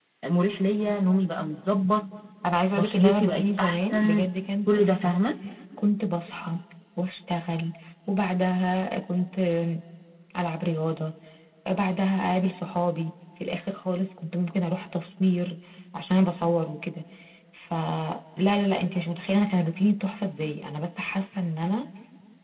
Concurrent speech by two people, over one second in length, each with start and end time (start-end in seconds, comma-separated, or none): 2.8-4.3